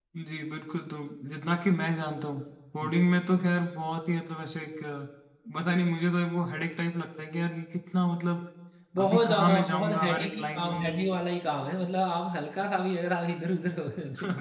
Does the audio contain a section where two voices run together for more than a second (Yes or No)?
Yes